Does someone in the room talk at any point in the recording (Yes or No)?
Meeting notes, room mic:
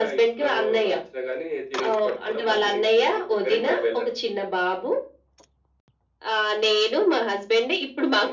No